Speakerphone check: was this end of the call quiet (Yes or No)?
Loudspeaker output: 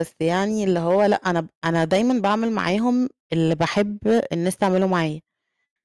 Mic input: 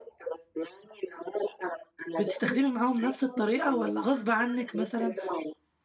No